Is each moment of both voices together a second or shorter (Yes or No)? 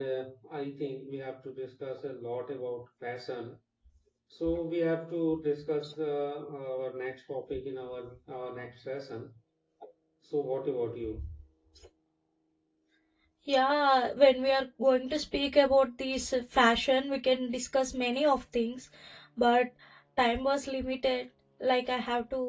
Yes